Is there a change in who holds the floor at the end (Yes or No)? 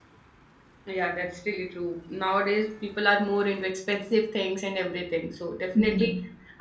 No